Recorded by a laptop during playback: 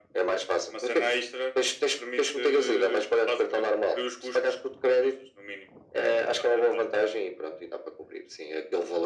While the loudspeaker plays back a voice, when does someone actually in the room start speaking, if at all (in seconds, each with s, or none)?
none